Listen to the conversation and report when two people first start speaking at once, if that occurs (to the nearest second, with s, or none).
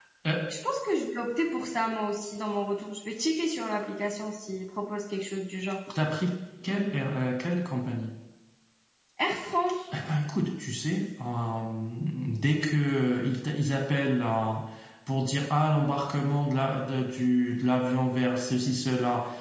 none